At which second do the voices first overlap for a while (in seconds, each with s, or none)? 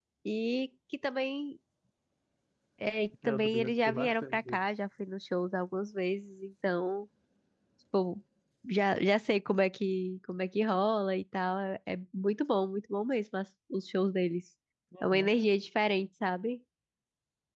3.2 s